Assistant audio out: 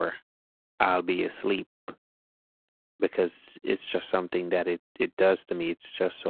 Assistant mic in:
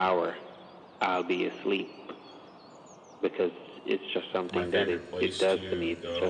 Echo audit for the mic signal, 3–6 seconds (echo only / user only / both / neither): both